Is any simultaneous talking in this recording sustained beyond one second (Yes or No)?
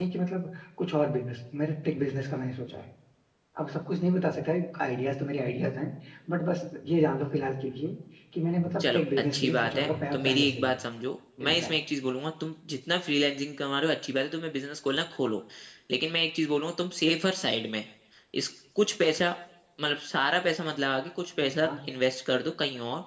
Yes